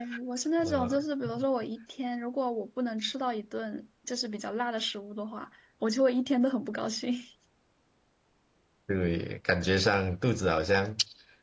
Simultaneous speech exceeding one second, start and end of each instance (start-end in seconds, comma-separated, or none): none